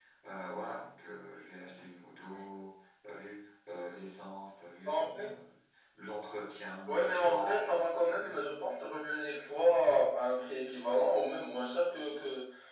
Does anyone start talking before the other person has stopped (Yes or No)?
Yes